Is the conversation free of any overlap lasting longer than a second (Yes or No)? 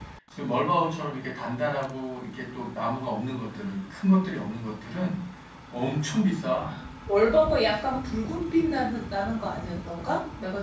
Yes